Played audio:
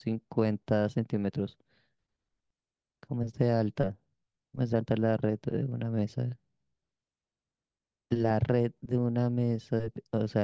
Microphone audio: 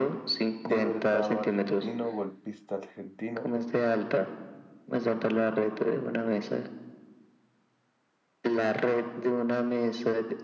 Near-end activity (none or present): present